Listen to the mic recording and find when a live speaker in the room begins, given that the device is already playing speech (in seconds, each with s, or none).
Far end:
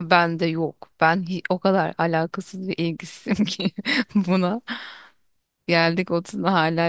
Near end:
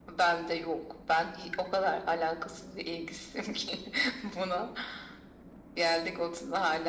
none